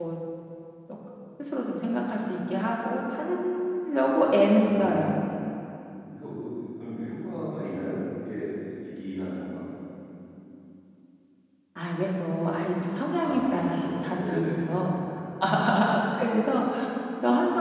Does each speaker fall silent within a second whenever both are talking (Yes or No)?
No